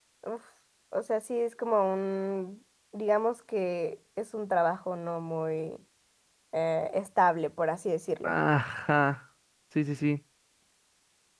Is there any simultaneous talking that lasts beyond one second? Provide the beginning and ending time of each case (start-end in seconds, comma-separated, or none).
none